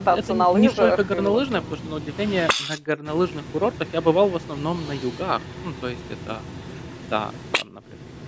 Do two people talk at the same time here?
Yes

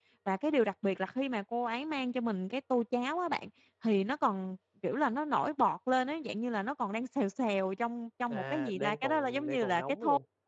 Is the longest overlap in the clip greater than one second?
Yes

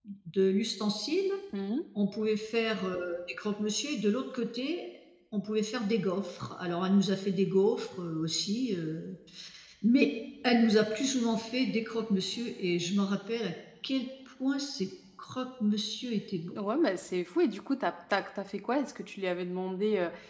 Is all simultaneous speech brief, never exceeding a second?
Yes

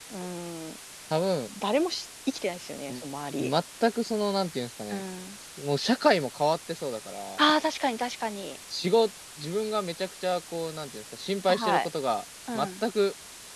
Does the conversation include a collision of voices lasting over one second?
No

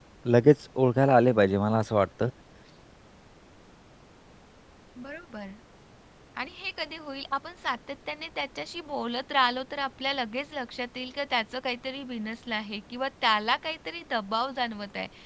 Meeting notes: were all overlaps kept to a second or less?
Yes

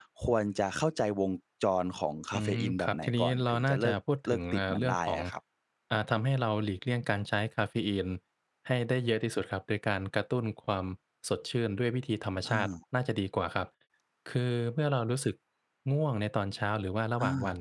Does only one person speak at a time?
No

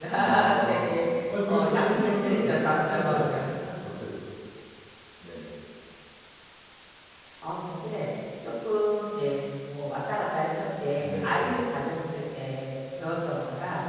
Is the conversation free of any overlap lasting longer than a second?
No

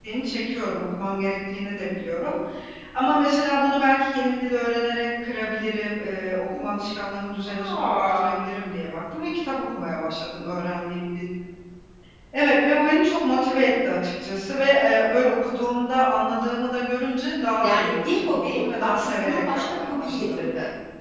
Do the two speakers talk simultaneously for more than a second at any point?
Yes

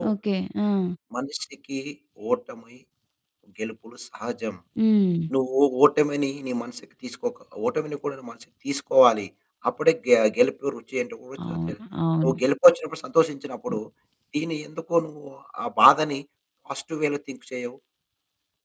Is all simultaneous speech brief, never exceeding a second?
Yes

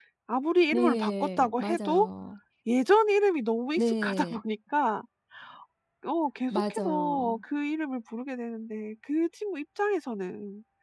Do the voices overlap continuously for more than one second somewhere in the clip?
Yes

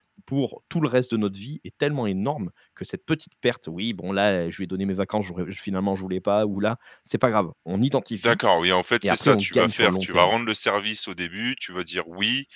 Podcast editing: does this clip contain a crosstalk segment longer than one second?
Yes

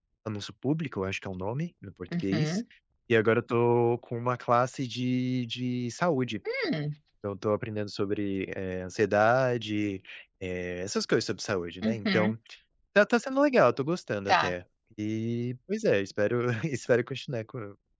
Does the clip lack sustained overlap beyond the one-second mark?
Yes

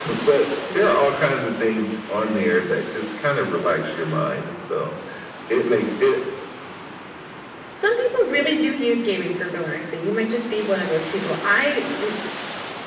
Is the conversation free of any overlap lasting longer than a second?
Yes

